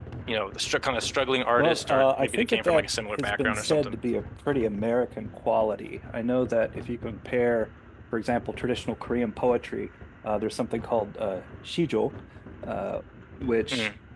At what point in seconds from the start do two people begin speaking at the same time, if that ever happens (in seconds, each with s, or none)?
1.6 s